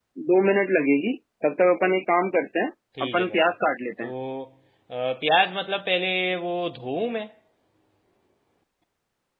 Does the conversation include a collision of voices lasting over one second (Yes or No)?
No